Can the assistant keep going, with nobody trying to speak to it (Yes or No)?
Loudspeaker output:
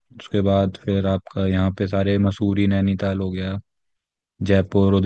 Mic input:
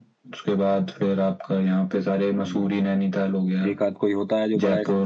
No